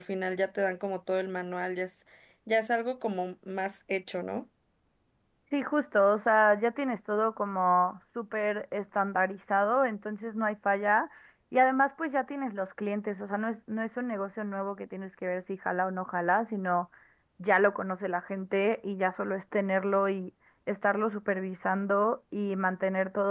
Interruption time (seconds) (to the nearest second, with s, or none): none